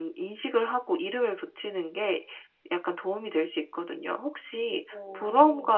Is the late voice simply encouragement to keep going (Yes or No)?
Yes